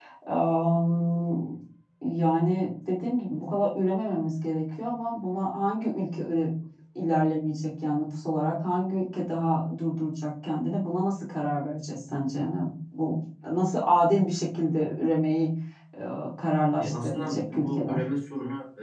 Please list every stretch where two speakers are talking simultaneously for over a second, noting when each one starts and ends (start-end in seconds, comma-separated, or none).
16.8-18.0